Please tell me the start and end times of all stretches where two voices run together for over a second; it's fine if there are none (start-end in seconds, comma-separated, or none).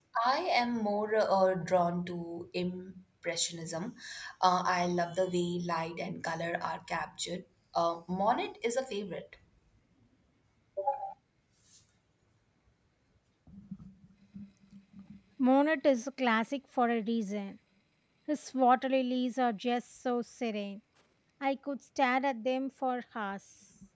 none